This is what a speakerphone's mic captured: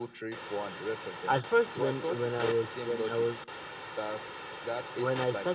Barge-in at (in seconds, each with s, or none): none